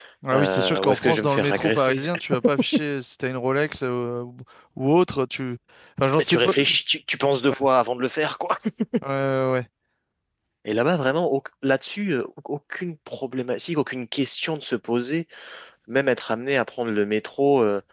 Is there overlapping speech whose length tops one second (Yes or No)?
Yes